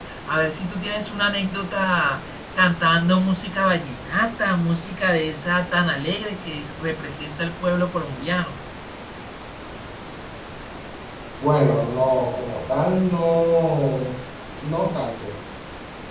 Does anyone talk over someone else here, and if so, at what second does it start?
none

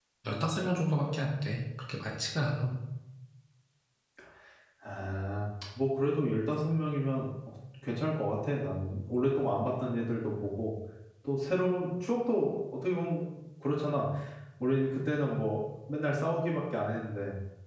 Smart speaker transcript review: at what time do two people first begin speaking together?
none

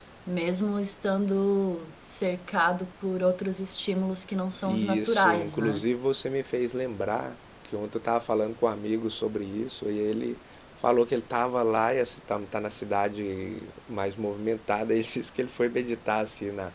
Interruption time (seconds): 4.6 s

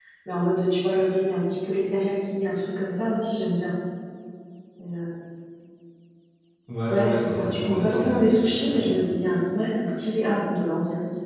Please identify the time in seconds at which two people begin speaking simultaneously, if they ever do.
6.9 s

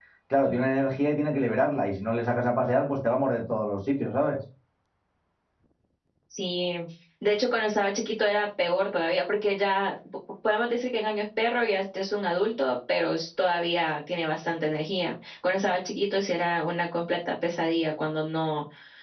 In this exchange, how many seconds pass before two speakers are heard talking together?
none

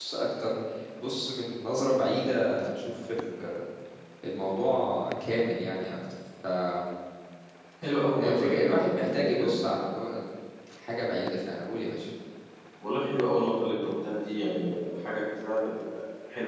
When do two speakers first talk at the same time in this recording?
8.2 s

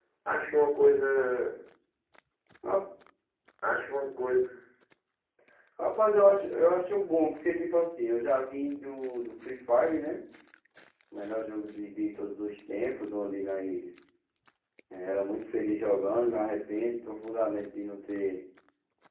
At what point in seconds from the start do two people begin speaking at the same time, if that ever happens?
none

